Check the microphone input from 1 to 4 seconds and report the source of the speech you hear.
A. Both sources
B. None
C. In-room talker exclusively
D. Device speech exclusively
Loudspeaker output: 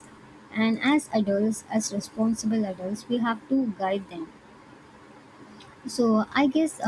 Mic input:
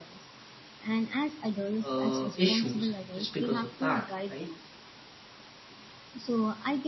A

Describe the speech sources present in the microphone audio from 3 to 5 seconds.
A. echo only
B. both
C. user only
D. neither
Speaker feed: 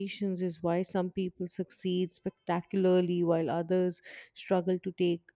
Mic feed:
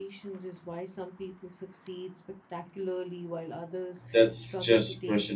B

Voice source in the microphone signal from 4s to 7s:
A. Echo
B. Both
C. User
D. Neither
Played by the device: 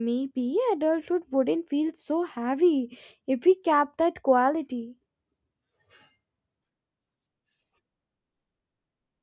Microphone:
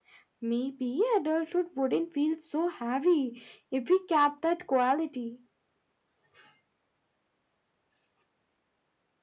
A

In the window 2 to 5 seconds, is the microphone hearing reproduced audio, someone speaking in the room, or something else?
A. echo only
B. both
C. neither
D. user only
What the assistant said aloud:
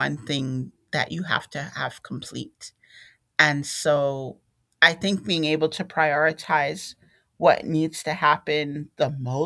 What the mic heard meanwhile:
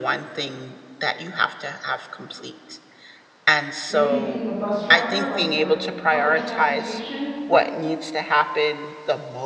B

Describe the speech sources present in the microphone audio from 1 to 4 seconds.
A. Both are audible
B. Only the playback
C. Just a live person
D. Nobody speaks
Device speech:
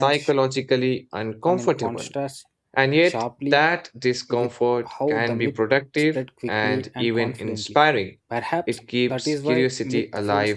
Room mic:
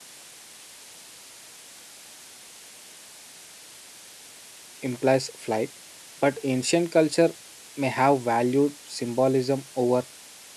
D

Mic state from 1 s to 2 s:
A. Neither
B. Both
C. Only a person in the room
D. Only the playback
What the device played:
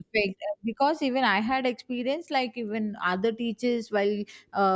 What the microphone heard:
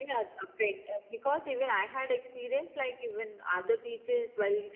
D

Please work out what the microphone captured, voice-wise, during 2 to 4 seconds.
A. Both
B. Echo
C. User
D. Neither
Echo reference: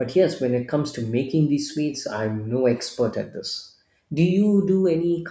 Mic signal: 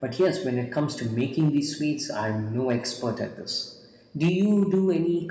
B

